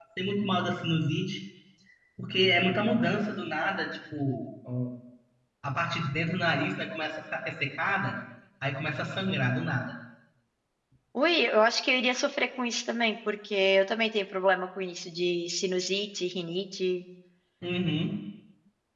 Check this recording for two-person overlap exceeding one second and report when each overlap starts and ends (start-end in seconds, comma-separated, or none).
none